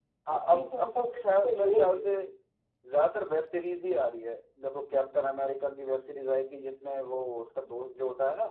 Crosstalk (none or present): present